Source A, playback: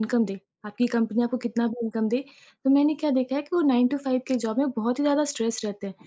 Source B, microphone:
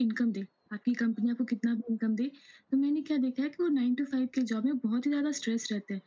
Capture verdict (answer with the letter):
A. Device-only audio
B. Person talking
A